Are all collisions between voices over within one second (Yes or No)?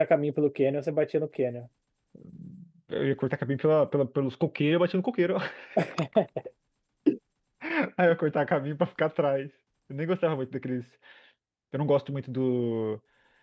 Yes